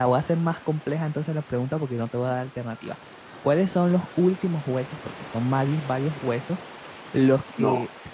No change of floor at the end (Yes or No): Yes